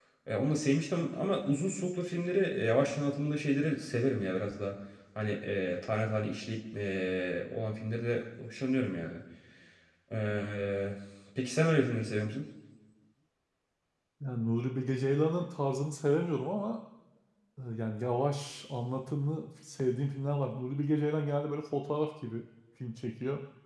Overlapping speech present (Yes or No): No